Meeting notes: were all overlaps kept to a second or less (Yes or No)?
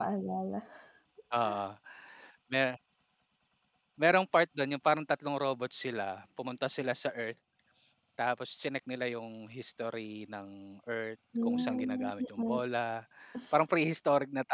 No